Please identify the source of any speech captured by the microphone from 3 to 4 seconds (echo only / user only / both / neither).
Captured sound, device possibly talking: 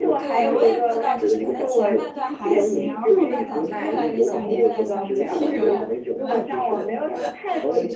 both